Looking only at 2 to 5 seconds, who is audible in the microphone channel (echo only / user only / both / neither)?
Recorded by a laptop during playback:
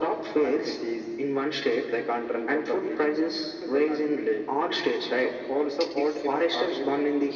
echo only